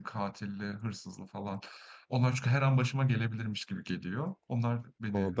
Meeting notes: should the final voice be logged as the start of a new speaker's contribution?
Yes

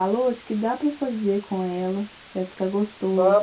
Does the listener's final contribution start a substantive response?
Yes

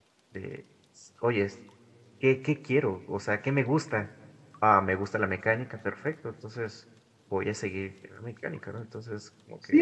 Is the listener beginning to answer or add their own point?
Yes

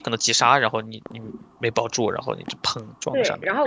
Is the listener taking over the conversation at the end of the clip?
Yes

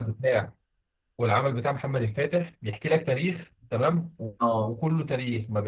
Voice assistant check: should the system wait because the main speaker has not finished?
Yes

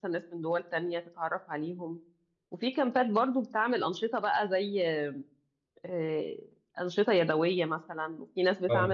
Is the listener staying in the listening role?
Yes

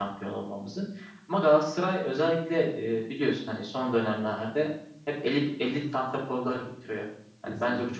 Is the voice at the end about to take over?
No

